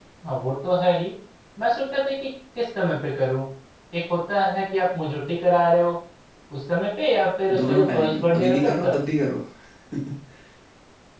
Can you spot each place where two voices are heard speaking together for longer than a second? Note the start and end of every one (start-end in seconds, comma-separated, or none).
7.7-9.0